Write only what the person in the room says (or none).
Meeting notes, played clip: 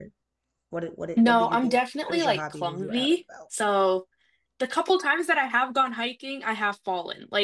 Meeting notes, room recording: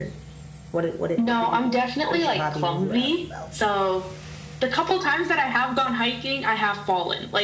none